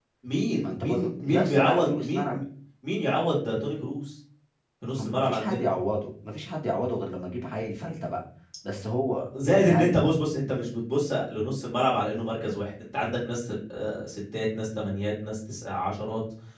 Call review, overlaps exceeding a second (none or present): present